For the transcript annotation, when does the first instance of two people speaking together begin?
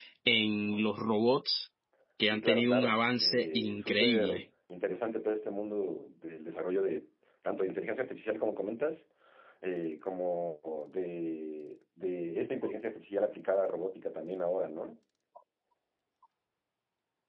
2.3 s

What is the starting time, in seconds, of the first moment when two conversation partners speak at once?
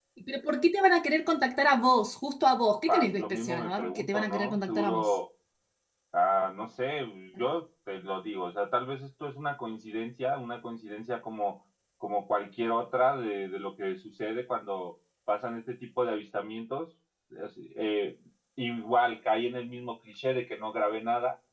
2.9 s

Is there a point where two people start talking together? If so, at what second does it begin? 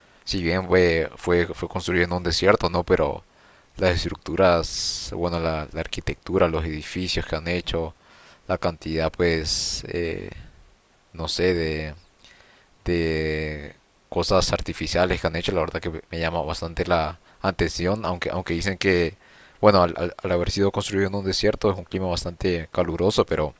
none

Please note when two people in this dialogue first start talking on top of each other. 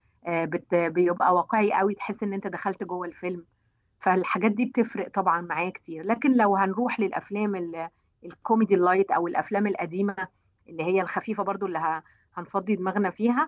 none

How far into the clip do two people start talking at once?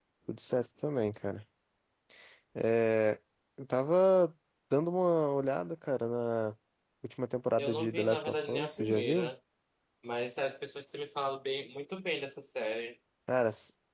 7.6 s

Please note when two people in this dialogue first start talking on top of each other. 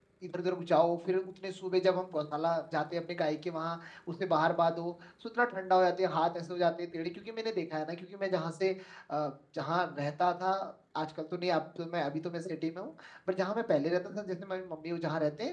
none

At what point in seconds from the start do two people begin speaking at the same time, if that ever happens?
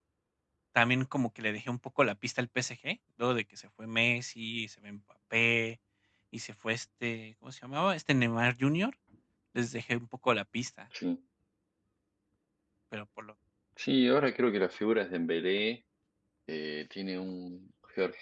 none

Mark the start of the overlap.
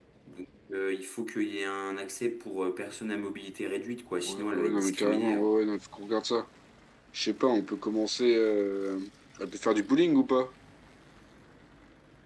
4.2 s

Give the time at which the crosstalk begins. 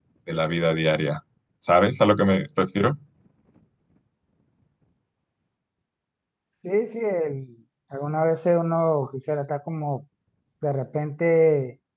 none

